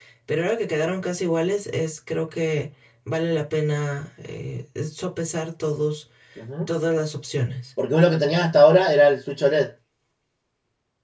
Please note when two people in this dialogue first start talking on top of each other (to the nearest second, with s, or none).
none